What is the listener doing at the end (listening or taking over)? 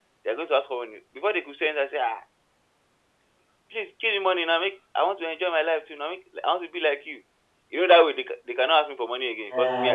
taking over